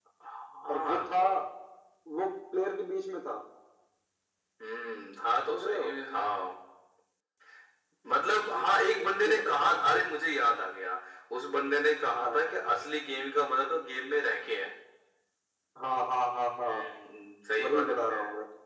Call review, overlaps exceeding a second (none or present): present